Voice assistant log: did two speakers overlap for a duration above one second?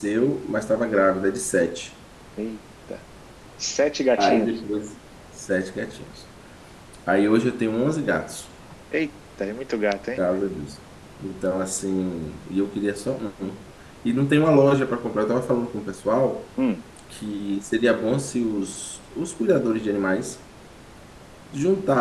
No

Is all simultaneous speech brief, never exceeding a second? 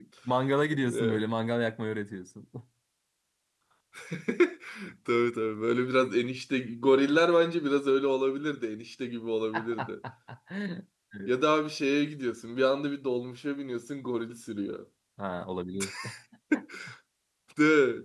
Yes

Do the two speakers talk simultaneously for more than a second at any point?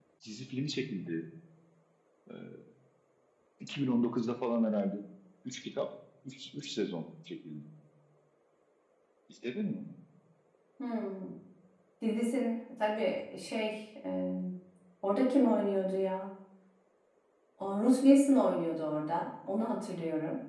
No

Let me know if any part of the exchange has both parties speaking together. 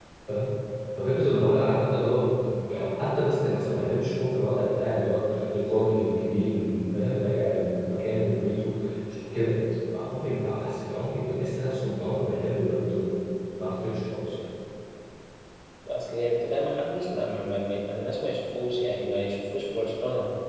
No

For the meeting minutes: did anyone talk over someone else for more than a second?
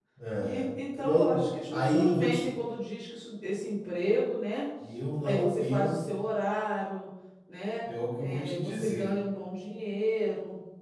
Yes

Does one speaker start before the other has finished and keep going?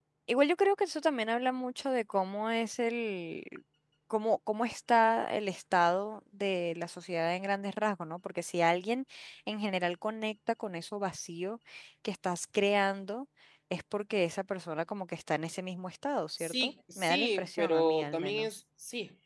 Yes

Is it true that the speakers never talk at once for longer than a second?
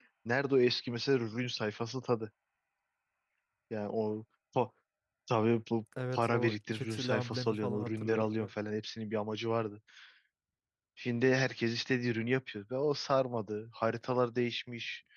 No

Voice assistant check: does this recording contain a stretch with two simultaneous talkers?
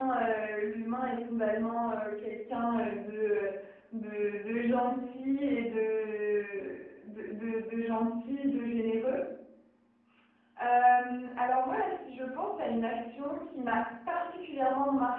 No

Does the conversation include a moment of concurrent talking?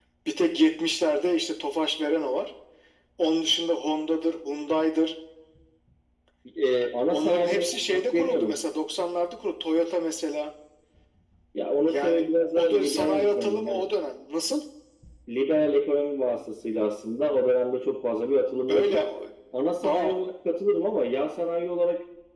Yes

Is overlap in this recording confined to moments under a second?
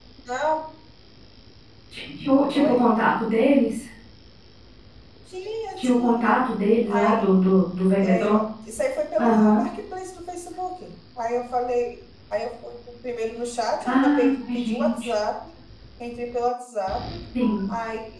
No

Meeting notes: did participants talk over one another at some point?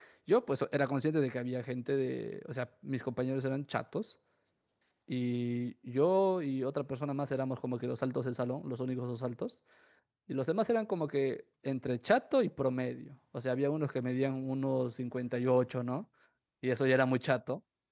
No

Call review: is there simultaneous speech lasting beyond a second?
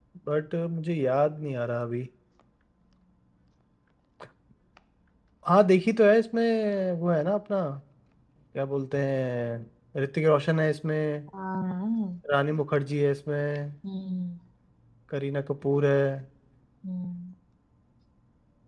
No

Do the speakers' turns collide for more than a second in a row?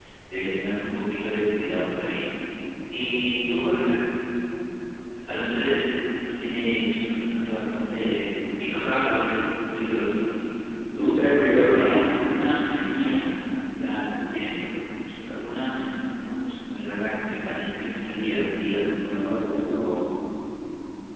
Yes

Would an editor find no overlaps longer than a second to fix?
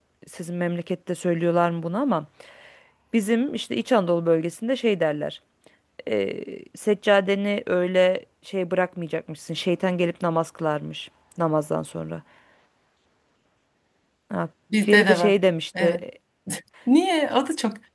Yes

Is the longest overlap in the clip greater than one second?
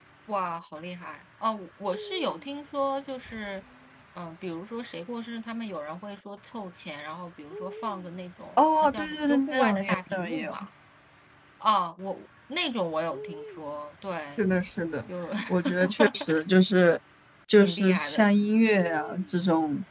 Yes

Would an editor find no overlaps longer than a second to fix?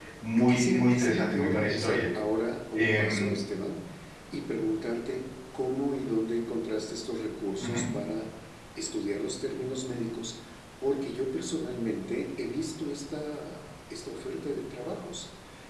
No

